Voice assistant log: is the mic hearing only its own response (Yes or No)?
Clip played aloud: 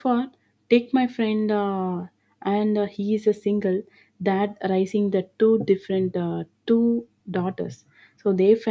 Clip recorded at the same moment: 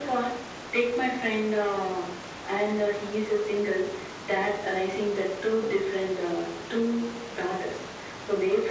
Yes